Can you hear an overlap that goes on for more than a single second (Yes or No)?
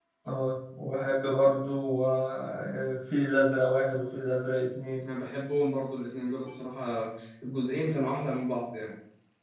No